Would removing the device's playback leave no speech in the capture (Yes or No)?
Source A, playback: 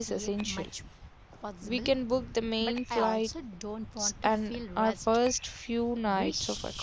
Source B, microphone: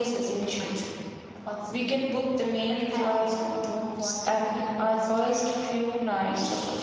Yes